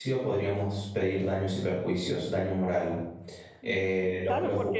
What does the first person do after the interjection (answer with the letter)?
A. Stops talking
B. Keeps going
A